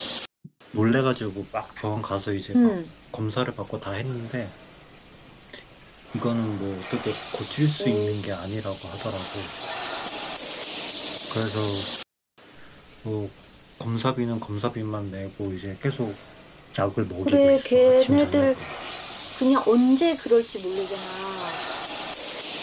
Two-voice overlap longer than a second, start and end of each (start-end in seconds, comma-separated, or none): 17.2-18.6